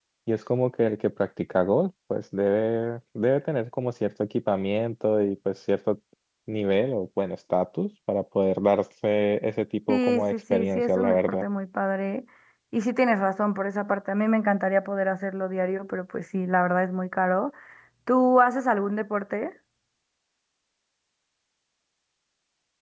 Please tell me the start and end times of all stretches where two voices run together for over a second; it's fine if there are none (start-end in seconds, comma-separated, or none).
9.9-11.4